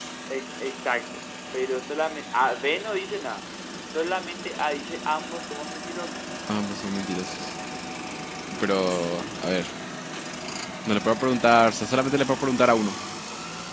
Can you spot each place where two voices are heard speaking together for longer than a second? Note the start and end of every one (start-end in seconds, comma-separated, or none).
none